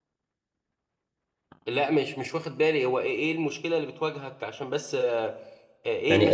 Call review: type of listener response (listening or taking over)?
taking over